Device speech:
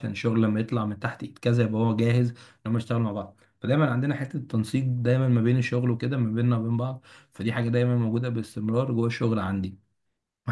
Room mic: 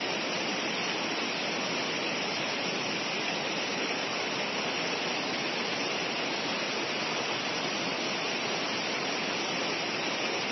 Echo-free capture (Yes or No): Yes